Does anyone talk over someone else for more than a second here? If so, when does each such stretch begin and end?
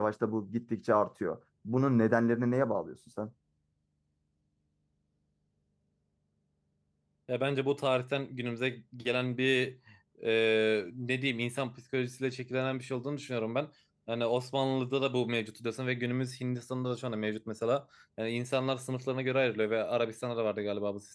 none

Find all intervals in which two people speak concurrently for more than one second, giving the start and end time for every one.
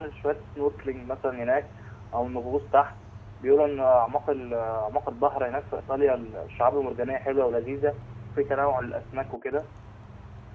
none

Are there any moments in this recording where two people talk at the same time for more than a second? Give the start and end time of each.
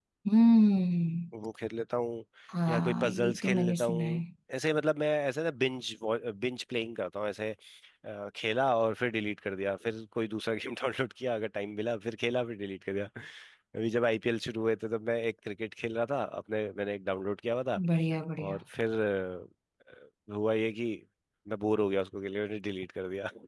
2.7-4.2

